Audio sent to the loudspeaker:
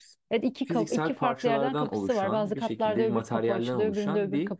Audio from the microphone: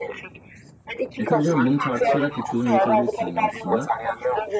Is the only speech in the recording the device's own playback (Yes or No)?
No